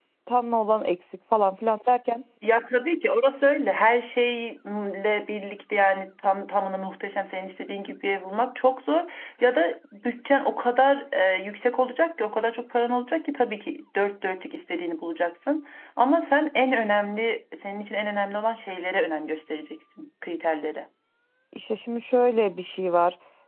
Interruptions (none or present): none